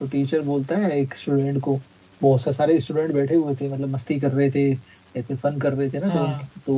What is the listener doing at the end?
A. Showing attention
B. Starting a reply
A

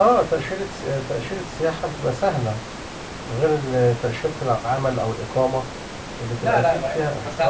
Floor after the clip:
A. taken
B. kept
A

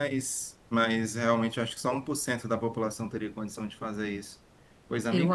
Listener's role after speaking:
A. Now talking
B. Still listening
B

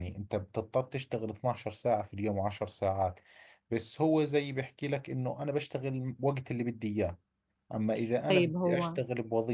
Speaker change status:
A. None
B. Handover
A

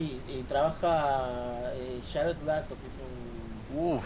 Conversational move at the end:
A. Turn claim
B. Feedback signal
A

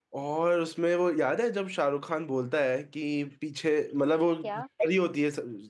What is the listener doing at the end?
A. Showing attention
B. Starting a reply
A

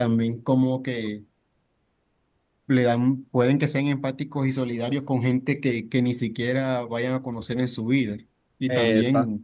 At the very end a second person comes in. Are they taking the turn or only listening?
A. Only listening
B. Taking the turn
A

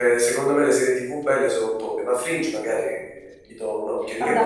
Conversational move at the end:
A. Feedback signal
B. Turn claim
B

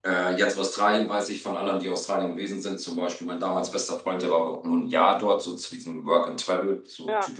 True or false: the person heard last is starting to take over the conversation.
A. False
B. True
A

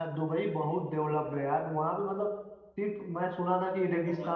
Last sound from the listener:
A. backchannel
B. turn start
A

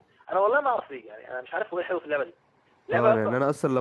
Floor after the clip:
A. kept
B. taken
B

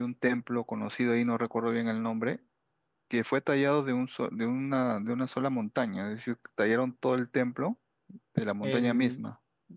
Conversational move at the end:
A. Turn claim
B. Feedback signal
A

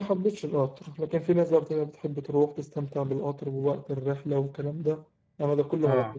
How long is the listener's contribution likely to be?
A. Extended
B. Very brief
B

